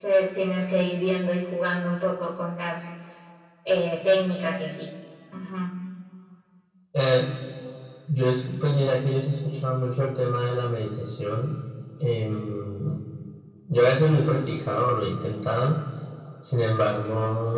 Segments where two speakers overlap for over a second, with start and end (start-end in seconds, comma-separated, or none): none